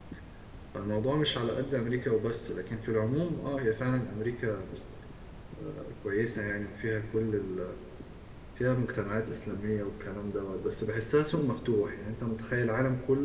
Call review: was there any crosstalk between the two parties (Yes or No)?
No